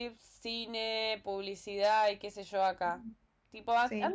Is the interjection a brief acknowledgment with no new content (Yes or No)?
Yes